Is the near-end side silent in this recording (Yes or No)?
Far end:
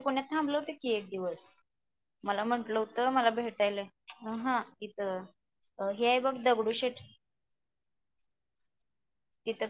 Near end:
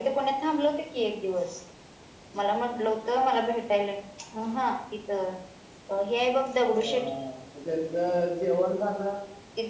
No